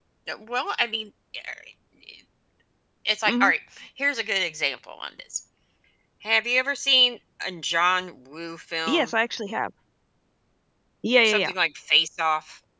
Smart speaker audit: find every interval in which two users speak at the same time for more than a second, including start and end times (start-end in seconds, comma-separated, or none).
none